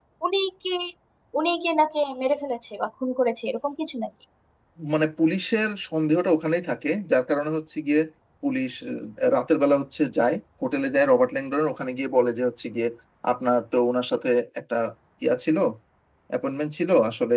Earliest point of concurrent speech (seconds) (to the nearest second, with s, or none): none